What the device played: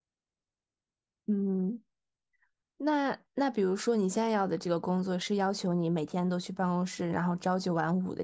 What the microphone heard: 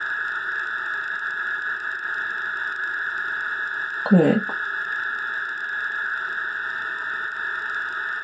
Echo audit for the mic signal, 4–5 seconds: user only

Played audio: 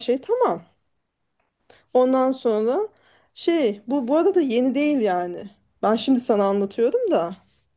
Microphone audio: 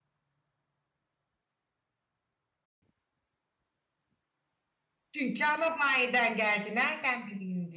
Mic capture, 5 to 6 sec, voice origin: user only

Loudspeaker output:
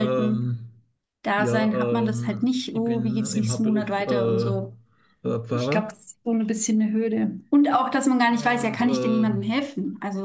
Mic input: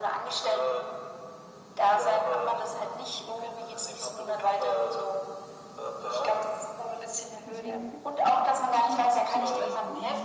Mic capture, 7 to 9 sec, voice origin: both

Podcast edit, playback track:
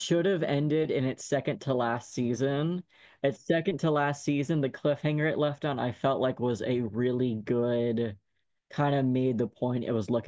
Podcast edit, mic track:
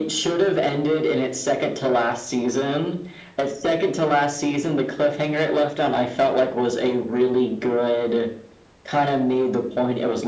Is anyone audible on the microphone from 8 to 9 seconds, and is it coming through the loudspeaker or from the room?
echo only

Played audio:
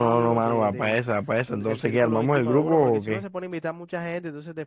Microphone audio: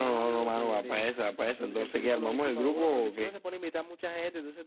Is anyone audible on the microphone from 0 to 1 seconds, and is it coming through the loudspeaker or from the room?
echo only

